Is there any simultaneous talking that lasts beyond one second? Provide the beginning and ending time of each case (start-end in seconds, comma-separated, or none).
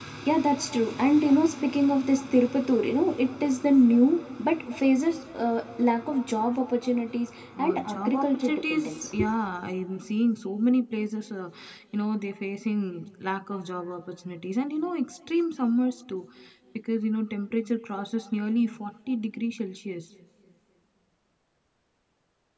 7.6-9.1